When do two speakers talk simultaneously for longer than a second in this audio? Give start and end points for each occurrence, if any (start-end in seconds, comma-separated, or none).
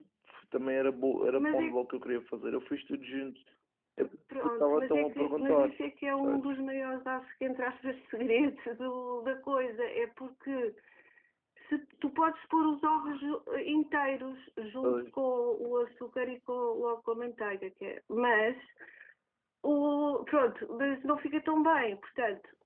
4.4-5.7